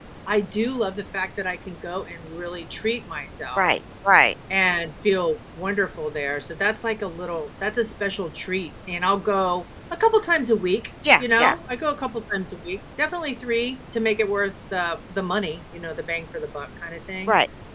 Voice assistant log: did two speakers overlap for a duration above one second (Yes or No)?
No